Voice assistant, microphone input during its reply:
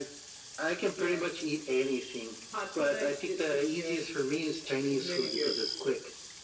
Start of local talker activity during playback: none

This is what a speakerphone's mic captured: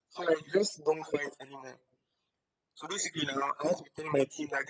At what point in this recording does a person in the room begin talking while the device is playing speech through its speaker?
none

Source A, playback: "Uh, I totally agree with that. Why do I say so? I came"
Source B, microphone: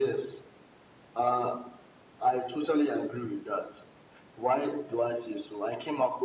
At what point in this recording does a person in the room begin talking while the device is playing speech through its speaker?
none

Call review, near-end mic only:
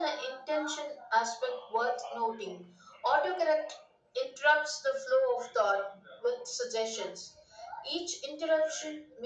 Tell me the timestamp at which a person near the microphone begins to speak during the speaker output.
none

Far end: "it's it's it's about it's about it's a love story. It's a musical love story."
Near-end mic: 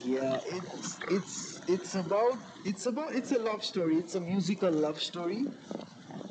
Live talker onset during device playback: none

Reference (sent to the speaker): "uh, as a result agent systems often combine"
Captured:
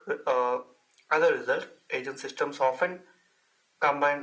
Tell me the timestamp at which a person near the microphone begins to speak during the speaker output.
none

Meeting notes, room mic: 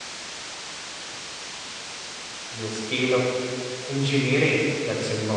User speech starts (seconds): 2.5 s

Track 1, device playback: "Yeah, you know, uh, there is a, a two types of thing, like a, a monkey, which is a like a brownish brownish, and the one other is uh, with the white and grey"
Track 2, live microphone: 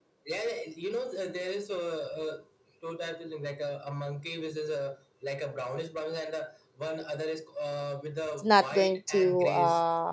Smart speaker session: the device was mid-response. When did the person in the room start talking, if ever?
8.3 s

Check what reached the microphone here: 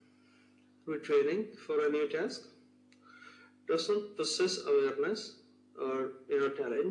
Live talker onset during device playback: none

